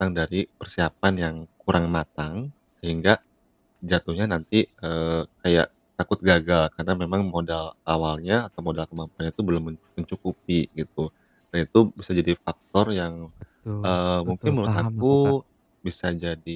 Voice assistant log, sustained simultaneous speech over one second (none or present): present